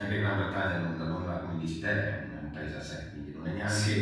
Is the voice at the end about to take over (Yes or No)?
No